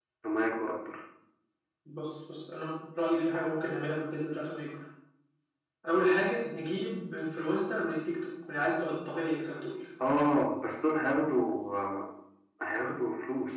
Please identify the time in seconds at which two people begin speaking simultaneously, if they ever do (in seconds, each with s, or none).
none